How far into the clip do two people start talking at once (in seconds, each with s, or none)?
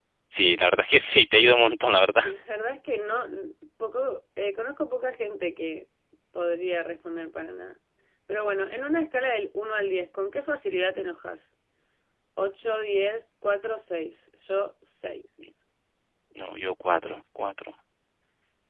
none